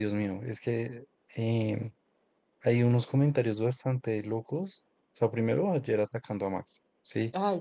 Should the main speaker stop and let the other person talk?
Yes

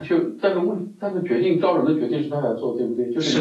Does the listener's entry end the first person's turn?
Yes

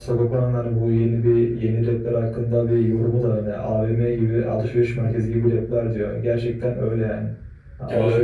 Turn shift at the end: No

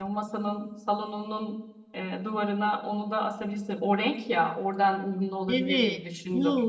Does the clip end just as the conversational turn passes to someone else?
Yes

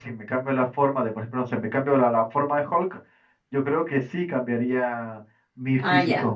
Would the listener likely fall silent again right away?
No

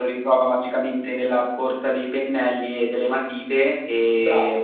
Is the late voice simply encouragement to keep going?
No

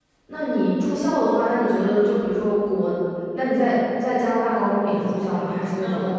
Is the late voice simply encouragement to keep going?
No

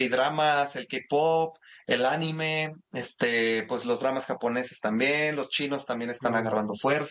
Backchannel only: Yes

